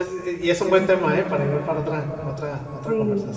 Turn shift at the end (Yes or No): Yes